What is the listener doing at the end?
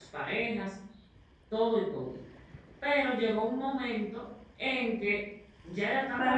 taking over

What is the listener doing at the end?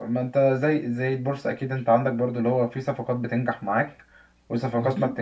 listening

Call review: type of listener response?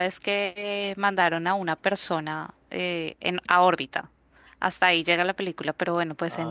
listening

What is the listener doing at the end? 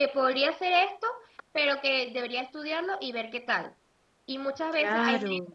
listening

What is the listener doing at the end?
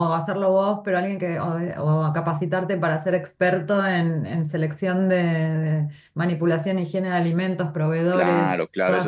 taking over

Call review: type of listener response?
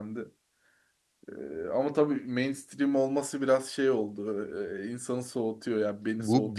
taking over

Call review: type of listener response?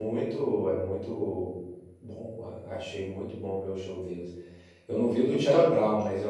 listening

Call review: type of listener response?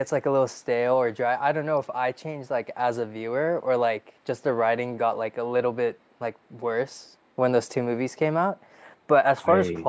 listening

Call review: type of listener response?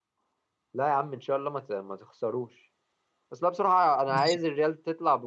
listening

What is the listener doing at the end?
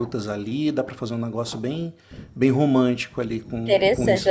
taking over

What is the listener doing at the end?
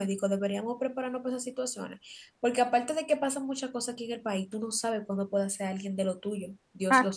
taking over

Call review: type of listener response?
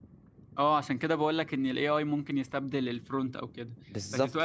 listening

